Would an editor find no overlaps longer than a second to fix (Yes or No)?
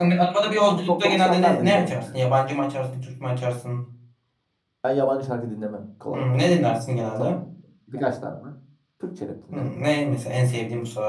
No